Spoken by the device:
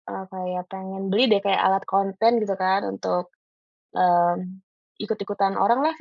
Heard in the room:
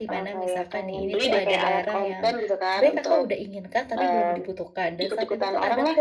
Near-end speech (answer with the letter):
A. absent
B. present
B